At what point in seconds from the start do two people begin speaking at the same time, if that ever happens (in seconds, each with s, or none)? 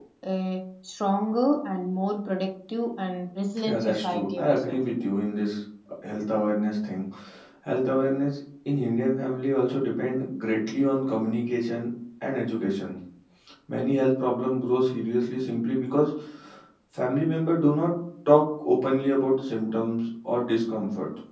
3.6 s